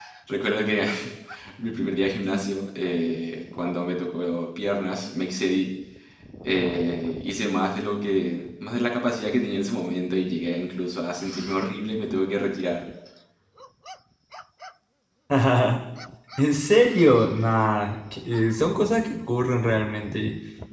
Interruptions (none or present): none